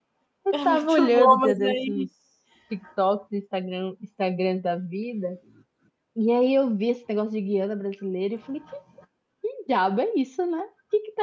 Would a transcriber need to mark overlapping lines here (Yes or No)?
Yes